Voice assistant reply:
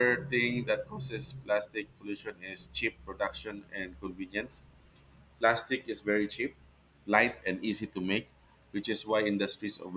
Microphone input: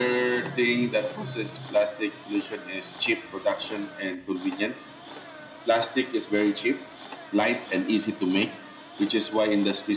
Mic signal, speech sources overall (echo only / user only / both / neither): echo only